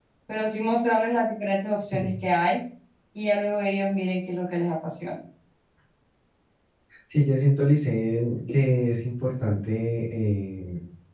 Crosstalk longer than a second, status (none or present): none